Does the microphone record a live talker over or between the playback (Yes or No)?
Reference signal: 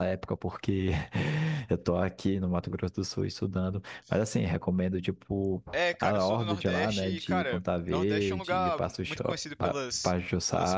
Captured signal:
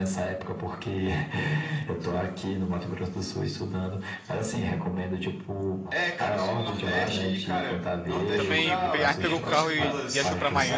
Yes